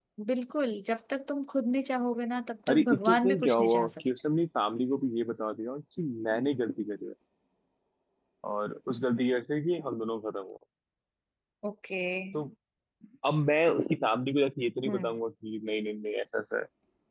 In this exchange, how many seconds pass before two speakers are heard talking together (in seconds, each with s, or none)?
2.7 s